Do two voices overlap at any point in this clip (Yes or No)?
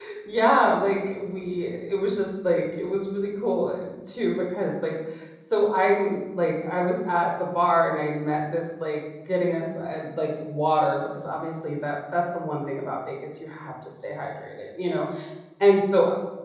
No